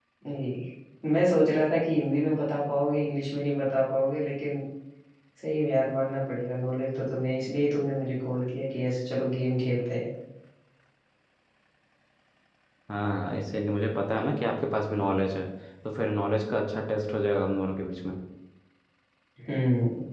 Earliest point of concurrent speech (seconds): none

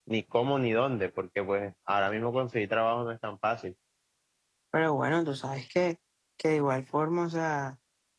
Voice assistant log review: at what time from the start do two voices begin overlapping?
none

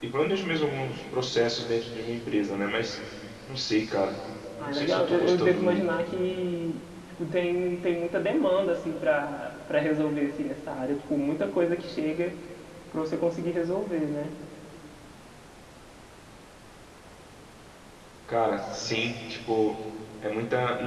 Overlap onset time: 4.6 s

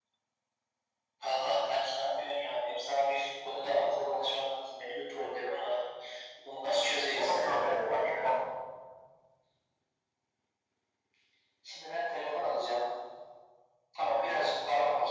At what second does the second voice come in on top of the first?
7.1 s

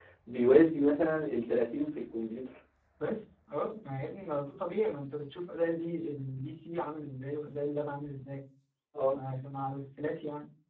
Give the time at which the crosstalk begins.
none

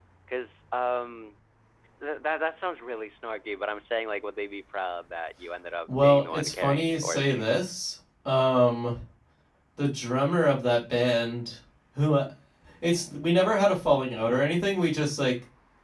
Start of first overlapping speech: 5.9 s

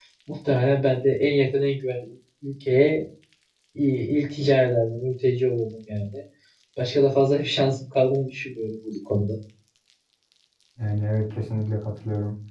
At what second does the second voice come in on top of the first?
none

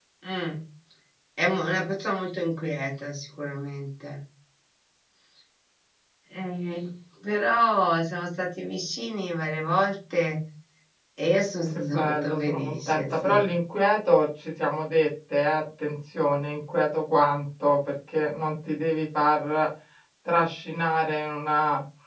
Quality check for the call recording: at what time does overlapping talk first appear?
11.7 s

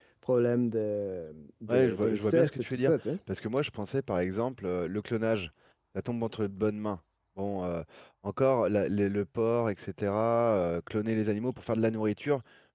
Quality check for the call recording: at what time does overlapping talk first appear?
1.7 s

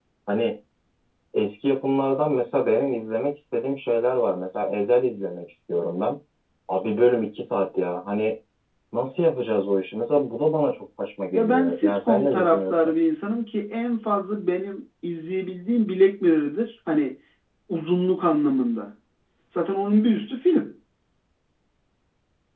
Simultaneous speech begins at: 11.3 s

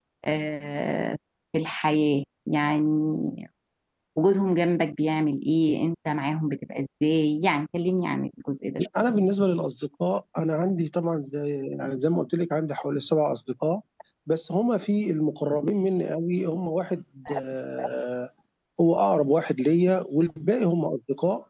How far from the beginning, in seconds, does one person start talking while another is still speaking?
none

